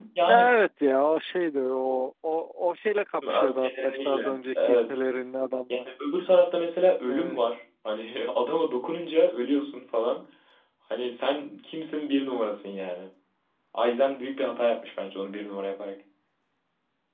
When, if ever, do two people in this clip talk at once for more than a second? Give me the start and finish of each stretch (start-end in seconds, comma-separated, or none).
3.3-5.0